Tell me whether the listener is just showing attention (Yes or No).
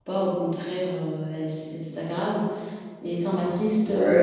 No